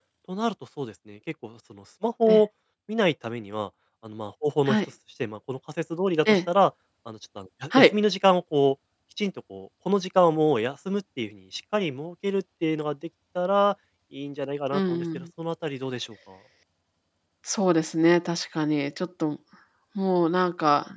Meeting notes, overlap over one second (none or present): none